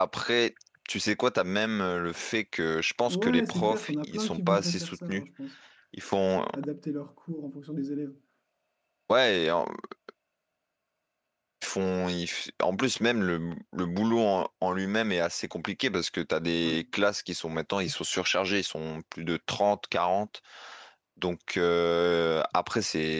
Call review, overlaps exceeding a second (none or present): present